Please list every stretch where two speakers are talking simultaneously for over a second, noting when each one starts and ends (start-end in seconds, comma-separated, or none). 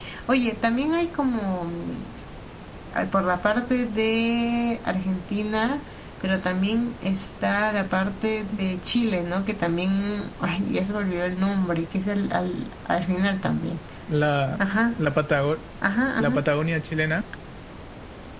none